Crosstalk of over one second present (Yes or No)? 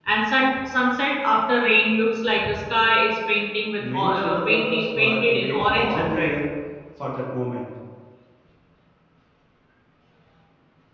Yes